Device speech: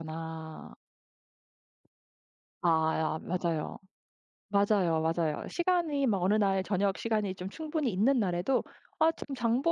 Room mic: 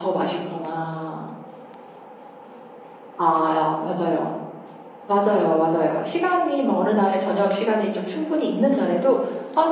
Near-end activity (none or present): none